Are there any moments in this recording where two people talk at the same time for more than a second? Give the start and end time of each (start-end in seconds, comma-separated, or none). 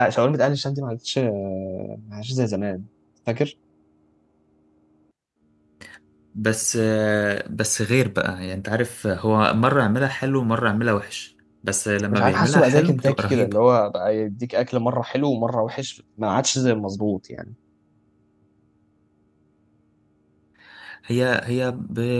12.1-13.6